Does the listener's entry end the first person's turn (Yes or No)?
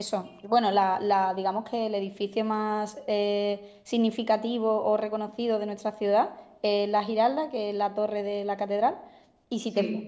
No